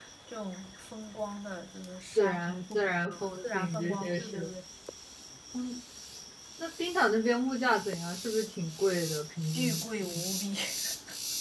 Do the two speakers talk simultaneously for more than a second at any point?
Yes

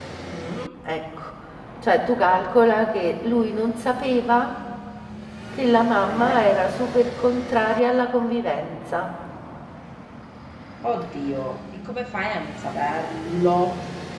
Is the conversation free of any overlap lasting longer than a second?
Yes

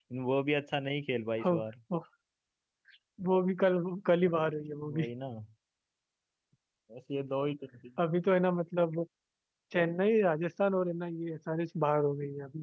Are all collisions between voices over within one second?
Yes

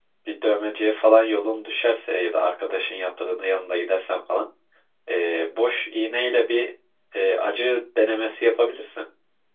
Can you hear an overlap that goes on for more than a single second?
No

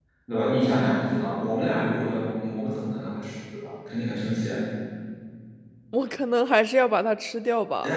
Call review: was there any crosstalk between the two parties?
No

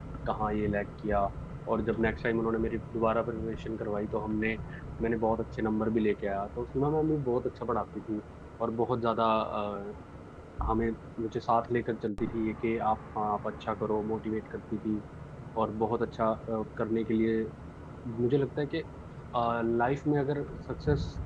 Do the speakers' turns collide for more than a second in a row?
No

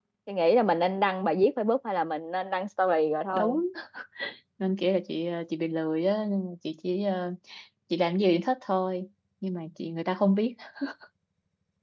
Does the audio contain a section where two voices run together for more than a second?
No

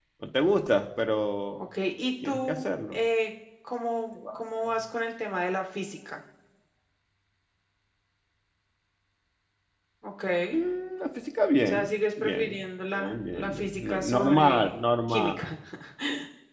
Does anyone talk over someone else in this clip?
Yes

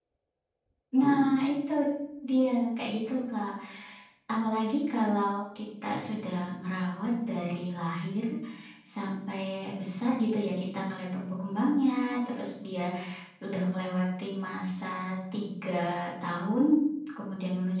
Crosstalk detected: No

